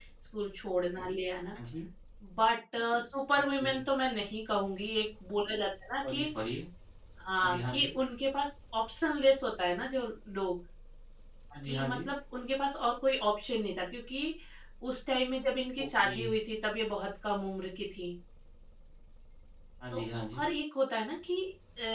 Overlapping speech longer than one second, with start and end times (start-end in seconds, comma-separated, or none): none